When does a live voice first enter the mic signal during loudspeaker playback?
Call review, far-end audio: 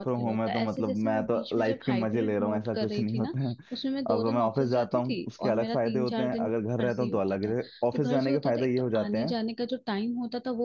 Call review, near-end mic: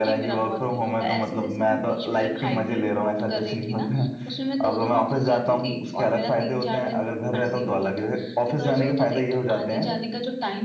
none

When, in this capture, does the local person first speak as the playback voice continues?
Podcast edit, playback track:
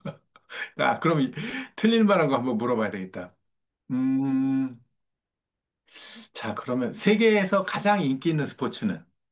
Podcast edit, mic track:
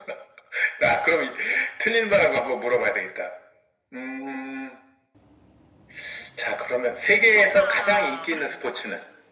7 s

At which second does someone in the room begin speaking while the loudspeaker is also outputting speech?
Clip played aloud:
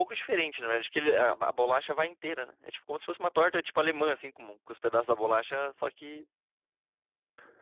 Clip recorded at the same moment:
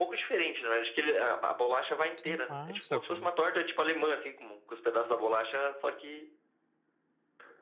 2 s

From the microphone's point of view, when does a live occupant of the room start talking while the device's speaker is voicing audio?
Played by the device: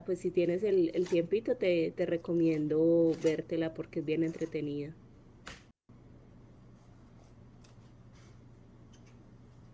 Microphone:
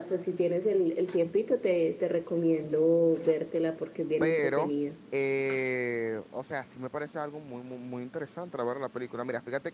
4 s

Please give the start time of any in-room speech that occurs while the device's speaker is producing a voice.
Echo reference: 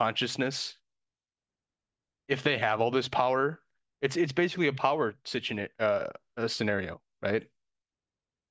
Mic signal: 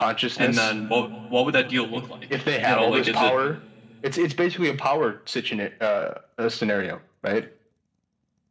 0 s

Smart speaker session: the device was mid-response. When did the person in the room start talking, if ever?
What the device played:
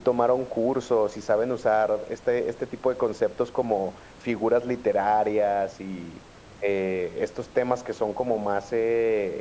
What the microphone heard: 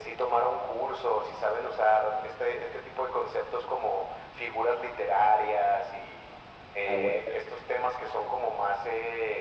7 s

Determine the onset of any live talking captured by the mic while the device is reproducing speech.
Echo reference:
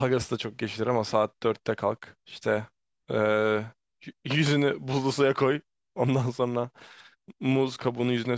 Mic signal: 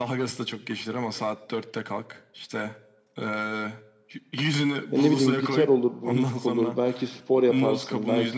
5 s

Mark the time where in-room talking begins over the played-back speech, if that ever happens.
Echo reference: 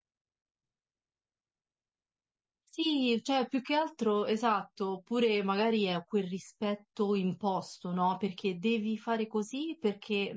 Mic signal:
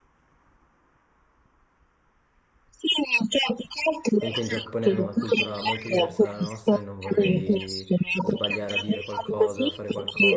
4 s

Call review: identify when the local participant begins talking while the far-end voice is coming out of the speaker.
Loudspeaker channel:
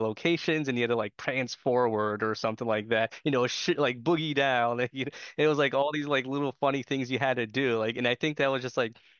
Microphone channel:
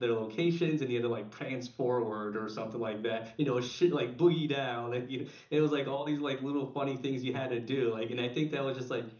none

